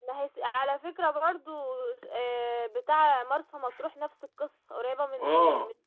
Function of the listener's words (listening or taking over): taking over